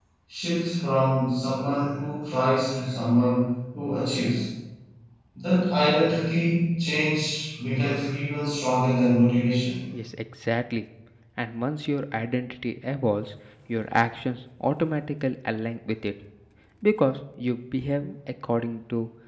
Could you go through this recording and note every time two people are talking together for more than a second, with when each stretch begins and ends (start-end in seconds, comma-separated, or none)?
none